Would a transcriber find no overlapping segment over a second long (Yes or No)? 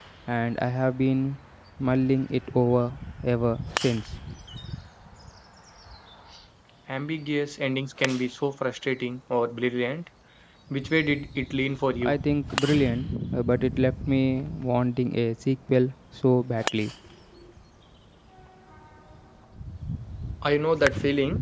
Yes